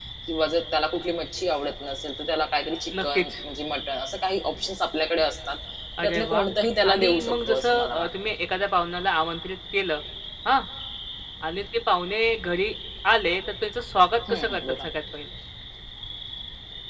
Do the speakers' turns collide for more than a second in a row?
Yes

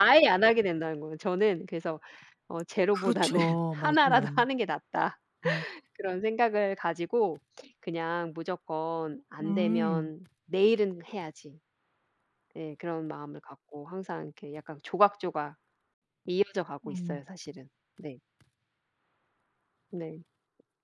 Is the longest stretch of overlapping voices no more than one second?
No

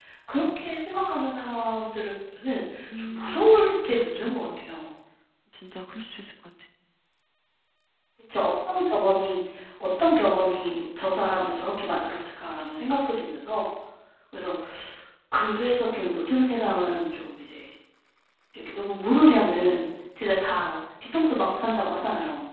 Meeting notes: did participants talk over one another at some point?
Yes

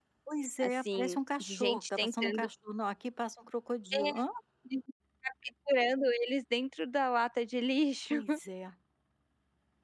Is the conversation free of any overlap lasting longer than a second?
No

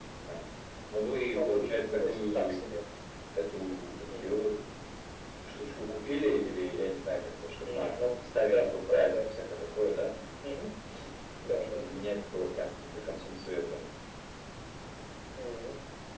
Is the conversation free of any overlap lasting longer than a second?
No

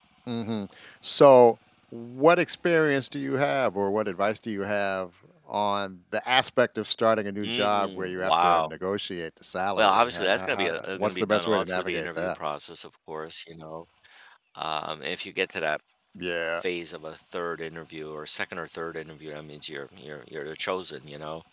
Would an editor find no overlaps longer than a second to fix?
No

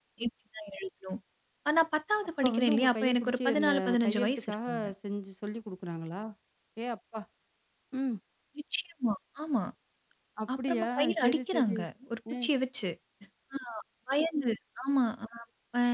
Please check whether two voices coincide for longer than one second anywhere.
Yes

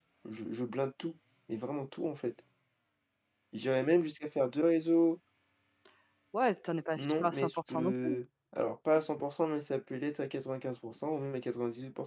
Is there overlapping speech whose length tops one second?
Yes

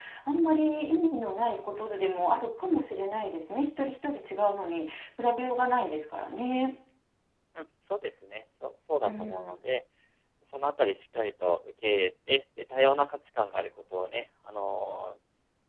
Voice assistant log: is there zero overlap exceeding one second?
Yes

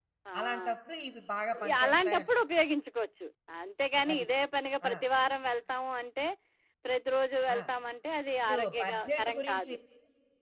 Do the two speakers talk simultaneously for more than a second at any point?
Yes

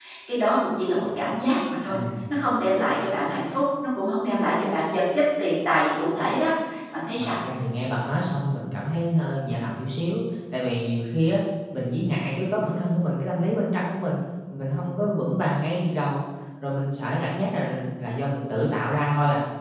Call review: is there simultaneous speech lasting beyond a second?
No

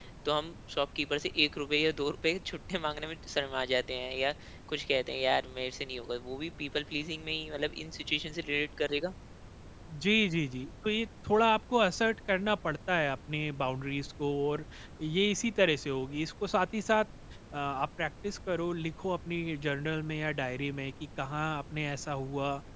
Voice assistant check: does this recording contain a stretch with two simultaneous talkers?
No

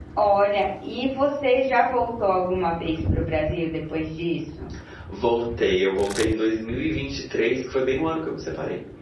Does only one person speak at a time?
Yes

